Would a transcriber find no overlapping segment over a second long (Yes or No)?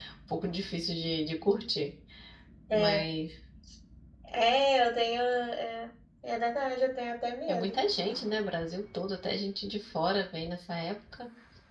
Yes